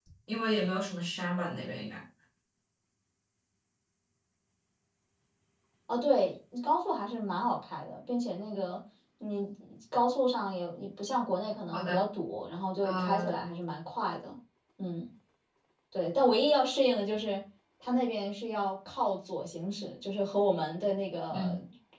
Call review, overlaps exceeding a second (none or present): none